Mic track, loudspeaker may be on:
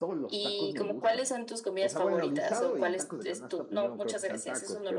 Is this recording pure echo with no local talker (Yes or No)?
No